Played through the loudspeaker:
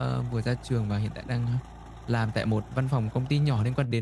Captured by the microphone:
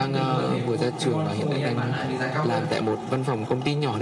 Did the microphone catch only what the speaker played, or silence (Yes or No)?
No